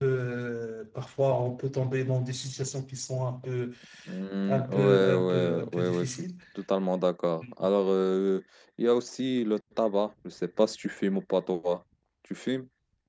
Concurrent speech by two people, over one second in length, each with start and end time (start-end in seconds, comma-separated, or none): 4.5-6.2